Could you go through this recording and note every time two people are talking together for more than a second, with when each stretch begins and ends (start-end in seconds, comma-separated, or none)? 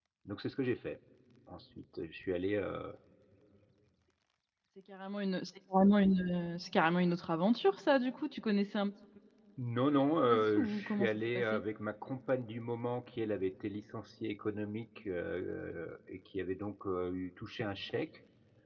10.2-11.6